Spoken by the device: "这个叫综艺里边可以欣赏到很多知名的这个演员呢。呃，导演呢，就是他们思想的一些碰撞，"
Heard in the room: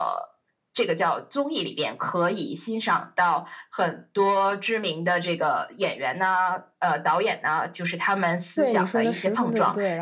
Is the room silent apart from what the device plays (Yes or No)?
No